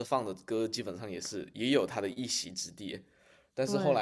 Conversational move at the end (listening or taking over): listening